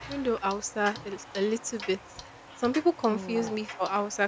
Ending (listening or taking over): listening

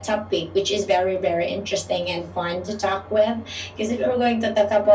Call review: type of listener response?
listening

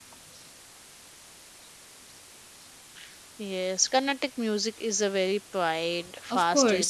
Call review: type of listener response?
taking over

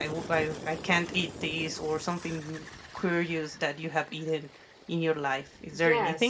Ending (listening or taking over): taking over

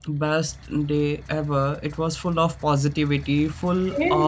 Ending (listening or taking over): listening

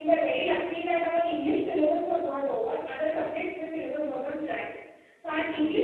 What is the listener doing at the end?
listening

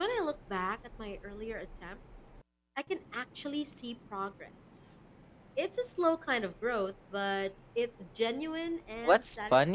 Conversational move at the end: taking over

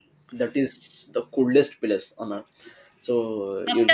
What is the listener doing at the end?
taking over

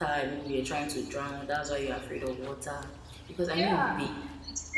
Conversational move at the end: taking over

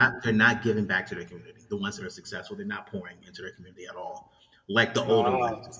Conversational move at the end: listening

